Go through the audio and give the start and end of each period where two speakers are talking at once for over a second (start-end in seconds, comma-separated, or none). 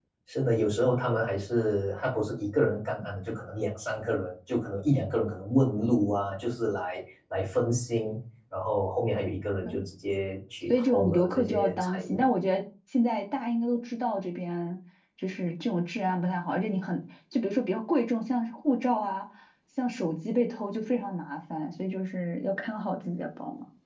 10.8-12.2